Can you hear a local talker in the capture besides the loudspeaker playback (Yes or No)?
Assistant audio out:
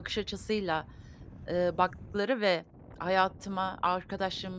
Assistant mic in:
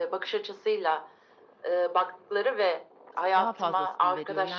Yes